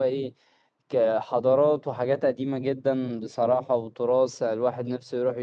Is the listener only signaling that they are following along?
Yes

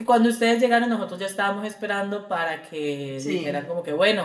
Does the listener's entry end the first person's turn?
No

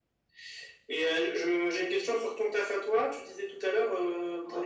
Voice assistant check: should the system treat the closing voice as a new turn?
No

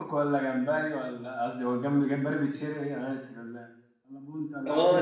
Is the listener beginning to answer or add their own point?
Yes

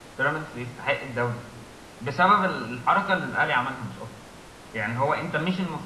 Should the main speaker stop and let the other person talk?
No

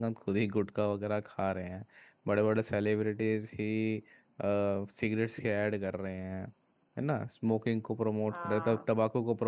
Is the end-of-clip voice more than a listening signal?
No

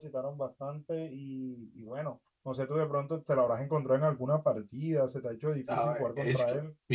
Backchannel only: No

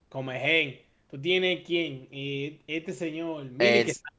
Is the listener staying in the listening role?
No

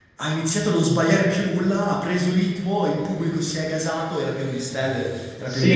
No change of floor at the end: No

